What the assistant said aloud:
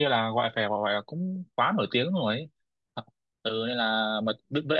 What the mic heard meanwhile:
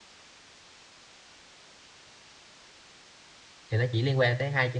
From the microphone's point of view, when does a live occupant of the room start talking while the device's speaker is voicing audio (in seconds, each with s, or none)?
3.7 s